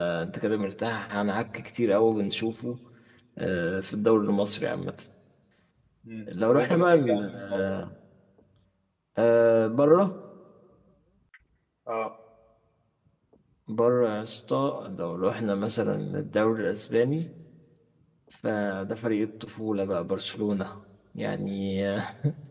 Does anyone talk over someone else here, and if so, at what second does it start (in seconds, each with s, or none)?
6.3 s